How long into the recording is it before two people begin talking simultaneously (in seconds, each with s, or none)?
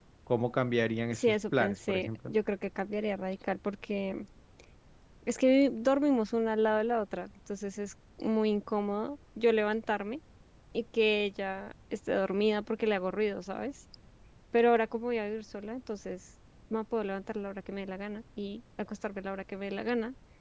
1.1 s